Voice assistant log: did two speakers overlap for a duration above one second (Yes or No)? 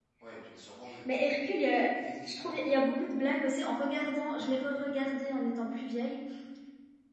No